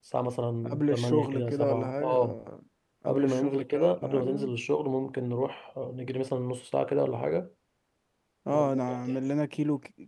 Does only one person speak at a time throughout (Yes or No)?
No